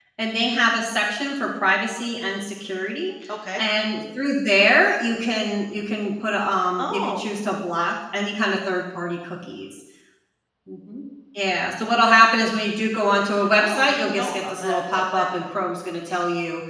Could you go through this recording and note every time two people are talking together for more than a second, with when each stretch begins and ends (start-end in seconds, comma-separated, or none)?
13.6-15.3